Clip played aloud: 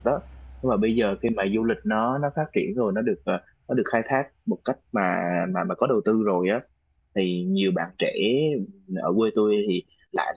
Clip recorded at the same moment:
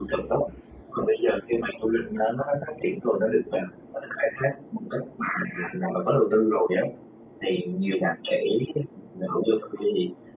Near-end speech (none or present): none